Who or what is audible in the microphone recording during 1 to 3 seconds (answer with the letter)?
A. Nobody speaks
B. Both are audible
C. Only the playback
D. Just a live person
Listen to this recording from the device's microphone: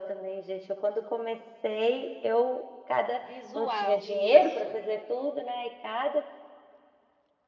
C